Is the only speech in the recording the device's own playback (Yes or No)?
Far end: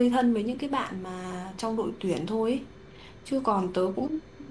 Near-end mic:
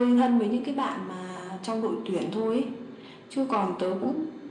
Yes